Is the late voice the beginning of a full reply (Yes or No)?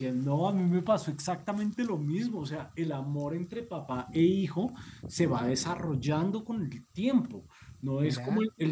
No